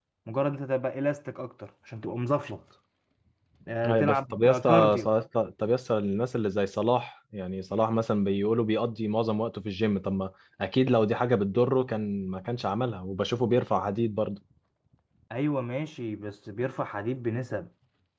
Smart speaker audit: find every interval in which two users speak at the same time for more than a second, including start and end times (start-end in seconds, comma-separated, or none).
3.9-5.1